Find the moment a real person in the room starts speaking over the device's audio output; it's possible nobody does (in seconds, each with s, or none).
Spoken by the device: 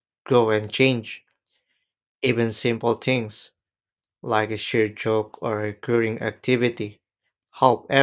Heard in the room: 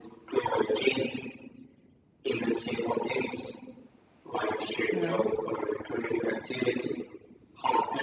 4.9 s